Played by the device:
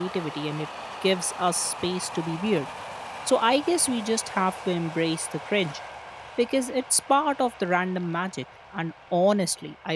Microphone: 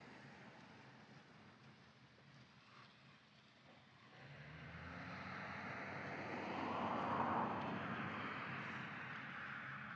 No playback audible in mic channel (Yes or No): Yes